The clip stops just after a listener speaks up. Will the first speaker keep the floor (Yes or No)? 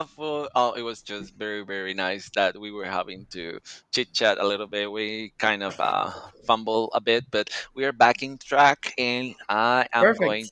Yes